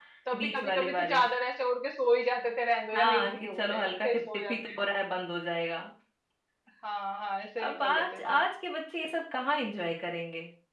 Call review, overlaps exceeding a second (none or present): present